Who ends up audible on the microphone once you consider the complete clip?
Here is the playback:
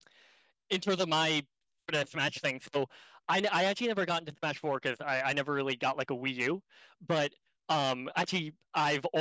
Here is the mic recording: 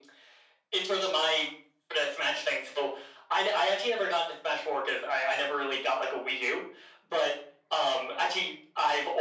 echo only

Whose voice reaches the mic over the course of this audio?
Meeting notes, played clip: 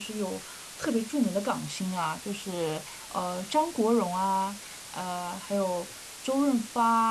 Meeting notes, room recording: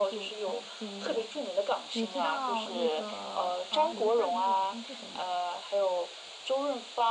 both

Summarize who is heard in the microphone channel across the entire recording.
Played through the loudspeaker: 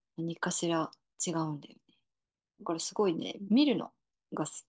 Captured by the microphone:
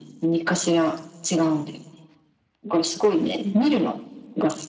echo only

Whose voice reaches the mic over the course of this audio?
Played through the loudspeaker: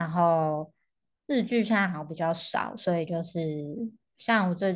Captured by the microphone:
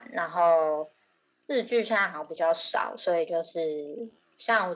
echo only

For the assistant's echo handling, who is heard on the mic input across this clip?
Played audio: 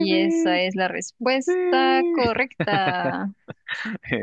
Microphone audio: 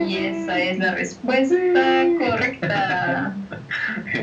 echo only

